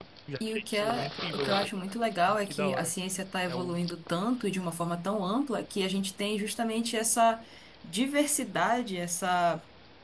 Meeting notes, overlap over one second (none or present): present